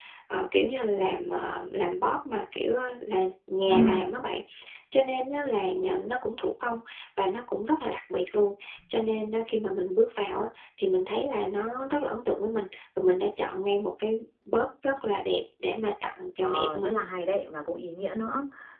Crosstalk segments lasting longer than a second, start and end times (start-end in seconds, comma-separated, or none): none